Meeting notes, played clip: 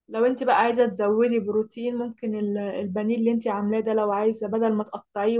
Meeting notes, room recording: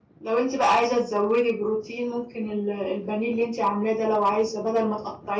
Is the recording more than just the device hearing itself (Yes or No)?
No